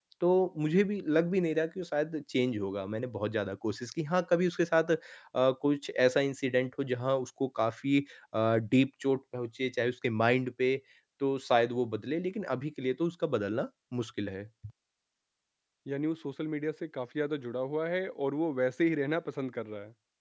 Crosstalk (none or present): none